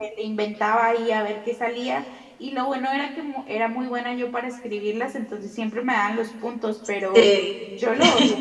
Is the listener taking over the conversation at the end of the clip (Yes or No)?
No